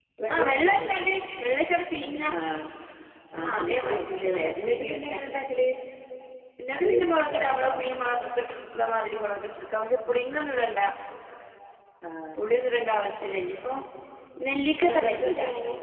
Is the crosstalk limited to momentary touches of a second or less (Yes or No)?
No